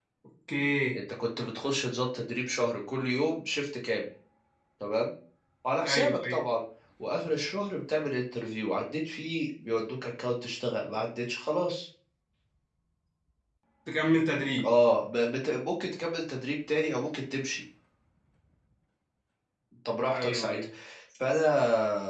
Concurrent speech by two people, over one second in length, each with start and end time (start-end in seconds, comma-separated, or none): none